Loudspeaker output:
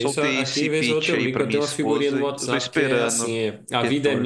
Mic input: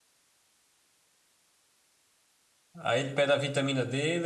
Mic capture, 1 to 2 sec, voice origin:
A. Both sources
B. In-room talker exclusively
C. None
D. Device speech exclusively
C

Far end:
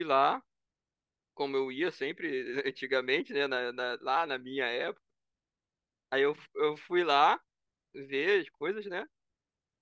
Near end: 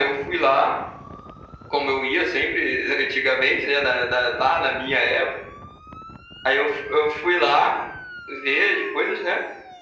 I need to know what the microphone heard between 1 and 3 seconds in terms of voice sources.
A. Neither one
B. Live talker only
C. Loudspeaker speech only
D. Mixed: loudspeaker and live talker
C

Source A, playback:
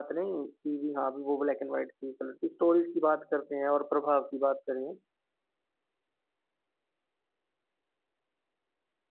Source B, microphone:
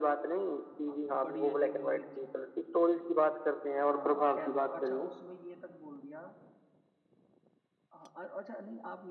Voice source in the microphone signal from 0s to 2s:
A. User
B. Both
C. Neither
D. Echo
B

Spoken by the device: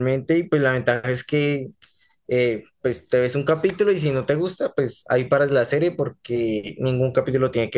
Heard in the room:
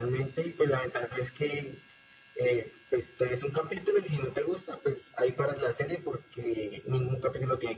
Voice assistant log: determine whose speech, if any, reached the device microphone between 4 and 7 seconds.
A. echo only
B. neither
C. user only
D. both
A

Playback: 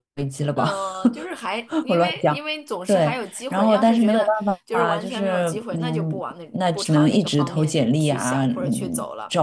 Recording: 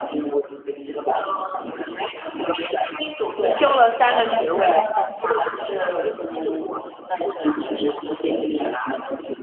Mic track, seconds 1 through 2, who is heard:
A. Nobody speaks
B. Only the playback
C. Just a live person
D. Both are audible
B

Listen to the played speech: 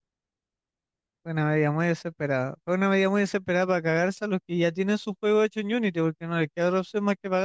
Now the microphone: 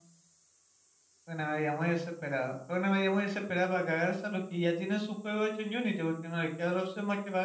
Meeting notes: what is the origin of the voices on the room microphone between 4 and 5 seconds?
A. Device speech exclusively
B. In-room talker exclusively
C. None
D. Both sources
A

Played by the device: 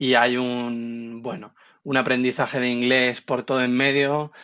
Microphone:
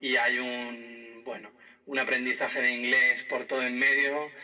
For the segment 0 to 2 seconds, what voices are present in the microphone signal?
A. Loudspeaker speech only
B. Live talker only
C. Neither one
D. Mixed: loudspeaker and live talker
A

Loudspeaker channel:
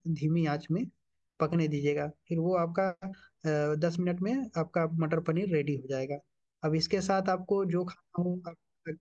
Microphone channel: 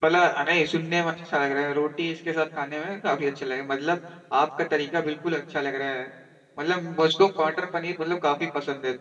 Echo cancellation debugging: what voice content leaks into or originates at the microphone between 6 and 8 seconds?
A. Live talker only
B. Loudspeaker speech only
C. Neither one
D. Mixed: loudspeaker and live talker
A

